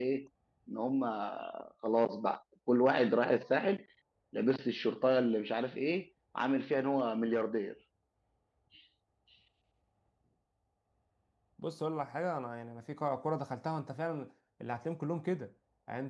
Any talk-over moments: No

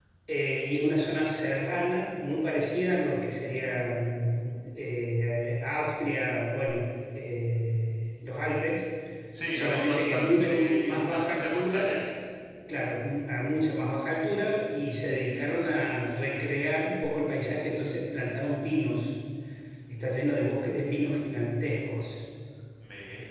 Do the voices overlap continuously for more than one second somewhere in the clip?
Yes, from 9.5 s

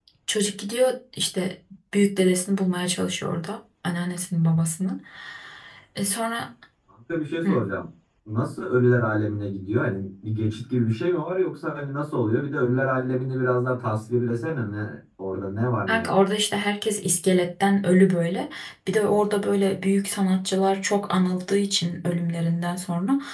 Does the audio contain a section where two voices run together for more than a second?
No

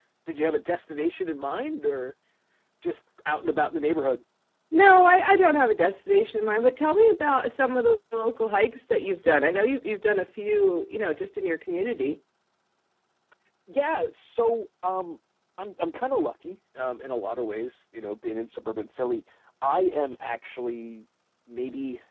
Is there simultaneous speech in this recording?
No

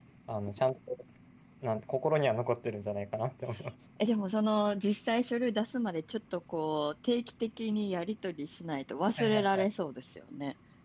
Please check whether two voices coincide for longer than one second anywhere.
No

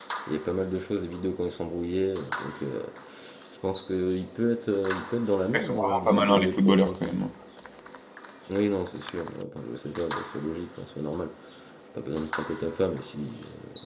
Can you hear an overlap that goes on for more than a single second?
Yes, from 5.5 s

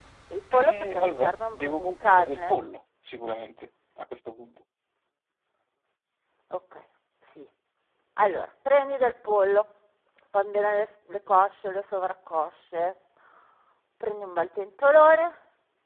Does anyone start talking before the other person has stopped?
Yes, from 0.5 s

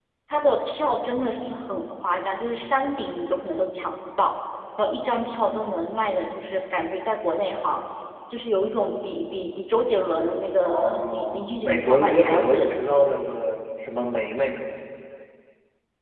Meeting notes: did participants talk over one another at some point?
Yes, from 10.6 s

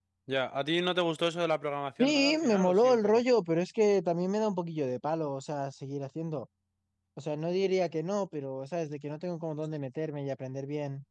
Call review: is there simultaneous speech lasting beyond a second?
Yes, from 2.0 s

